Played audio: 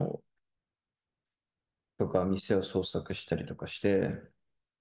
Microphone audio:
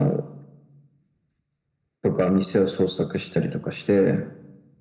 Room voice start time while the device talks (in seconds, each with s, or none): none